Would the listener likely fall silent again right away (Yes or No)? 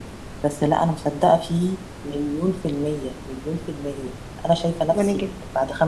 Yes